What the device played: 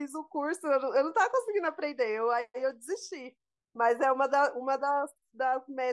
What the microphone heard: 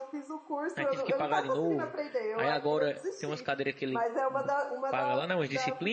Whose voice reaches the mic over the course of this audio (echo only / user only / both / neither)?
both